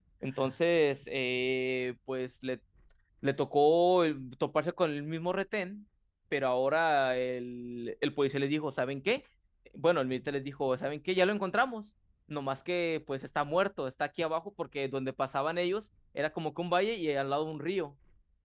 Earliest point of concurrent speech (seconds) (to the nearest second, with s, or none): none